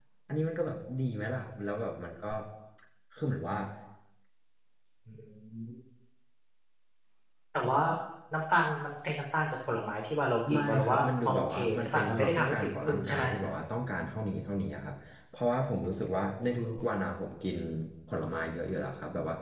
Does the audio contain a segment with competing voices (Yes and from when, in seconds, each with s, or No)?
Yes, from 10.5 s